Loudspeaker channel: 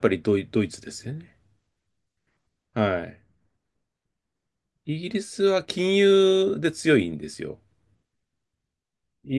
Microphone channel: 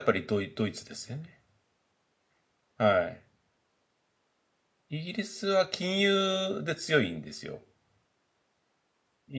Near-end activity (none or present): none